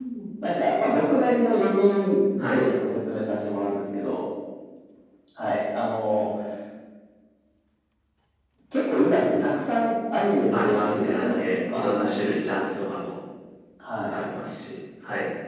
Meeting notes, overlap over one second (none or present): present